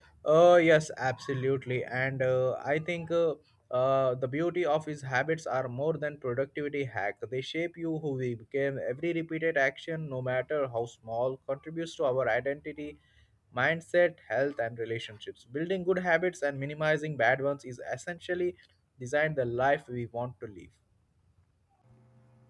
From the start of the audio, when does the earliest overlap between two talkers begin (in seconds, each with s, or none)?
none